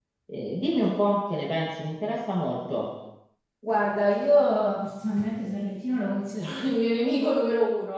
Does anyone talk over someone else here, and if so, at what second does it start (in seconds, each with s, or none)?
none